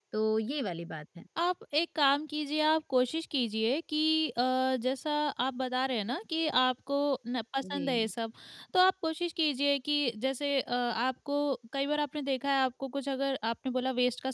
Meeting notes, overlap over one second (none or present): none